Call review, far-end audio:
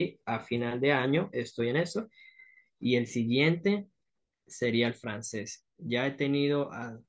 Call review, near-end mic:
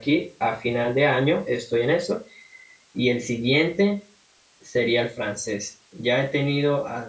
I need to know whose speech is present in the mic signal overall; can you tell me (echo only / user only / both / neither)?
echo only